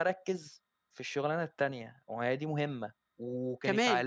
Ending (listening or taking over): listening